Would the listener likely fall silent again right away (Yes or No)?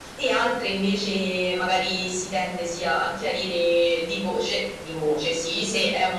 Yes